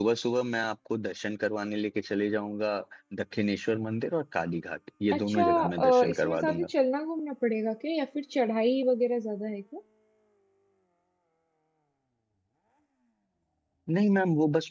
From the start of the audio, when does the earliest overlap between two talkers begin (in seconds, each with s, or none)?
5.1 s